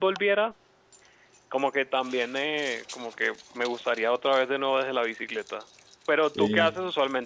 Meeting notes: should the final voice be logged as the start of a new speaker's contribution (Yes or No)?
No